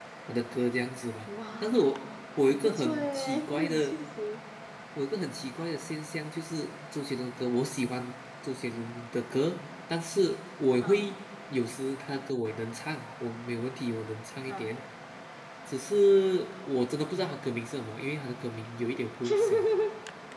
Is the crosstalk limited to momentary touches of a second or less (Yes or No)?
No